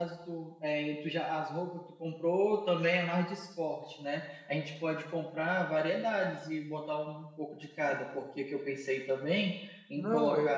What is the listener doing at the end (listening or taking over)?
taking over